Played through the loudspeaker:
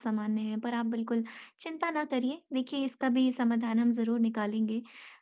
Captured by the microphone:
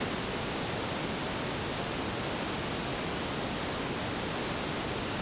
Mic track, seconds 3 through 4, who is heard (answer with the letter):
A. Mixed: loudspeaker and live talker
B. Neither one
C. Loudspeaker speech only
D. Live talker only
B